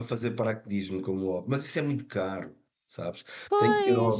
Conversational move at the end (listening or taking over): listening